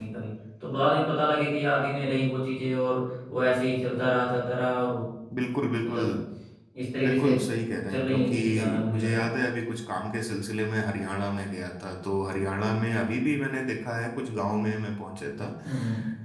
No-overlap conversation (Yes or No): No